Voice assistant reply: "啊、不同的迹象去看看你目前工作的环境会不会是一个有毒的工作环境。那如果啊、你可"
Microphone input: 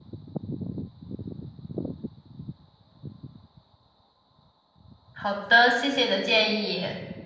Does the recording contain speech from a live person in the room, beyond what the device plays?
Yes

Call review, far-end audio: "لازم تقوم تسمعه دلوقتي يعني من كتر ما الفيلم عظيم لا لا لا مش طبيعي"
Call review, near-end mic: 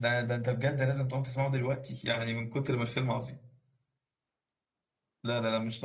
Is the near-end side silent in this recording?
Yes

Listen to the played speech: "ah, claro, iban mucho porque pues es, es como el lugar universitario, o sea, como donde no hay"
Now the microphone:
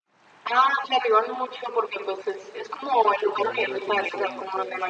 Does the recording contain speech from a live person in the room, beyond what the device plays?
Yes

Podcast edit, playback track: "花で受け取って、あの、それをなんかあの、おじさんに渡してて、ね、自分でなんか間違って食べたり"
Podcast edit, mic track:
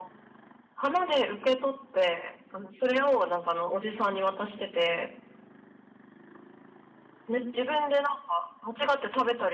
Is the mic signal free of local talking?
Yes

